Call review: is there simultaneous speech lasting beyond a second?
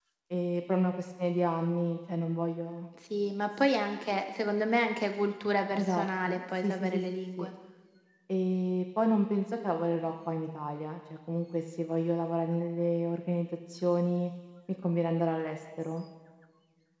Yes, from 5.8 s

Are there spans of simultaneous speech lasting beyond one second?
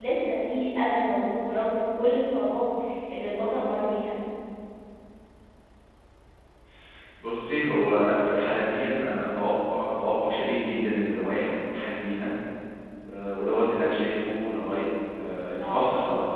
No

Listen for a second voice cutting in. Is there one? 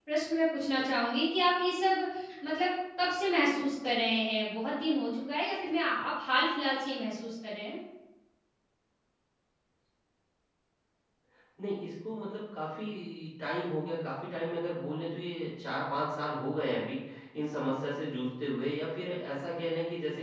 No

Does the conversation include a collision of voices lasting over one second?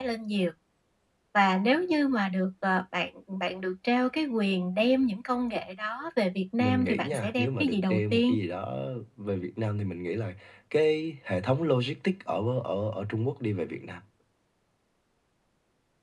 Yes, from 6.6 s

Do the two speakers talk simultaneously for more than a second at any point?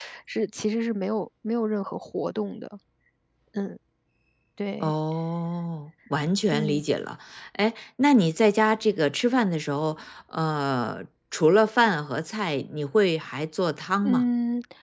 No

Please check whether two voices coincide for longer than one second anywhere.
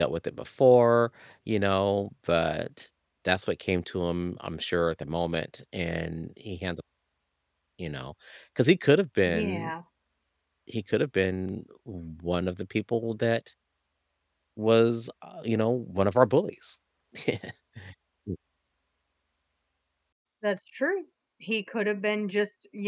No

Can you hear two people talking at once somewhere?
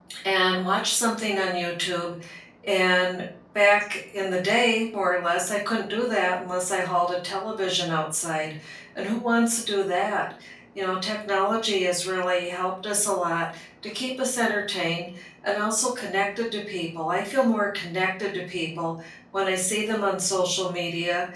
No

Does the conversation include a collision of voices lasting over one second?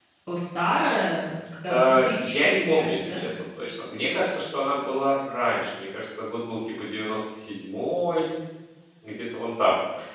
Yes, from 1.7 s

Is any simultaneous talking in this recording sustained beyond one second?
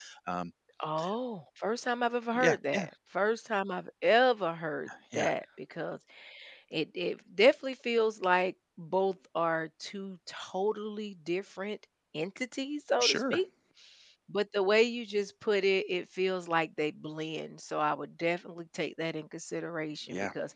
No

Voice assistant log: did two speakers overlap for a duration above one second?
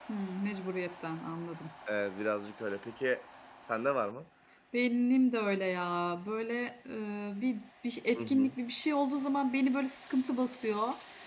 No

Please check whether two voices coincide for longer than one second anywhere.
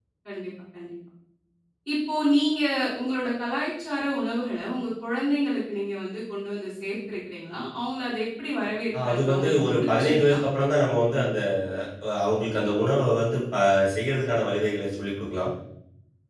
Yes, from 8.9 s

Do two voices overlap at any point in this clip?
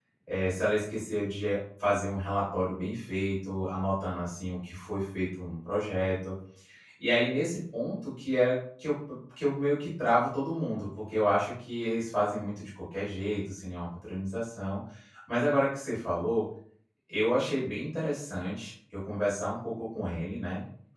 No

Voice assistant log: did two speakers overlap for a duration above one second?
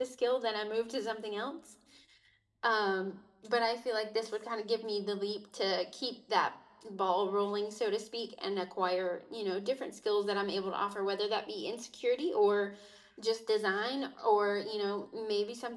No

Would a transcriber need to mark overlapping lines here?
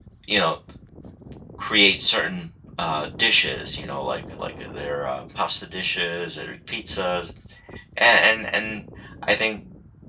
No

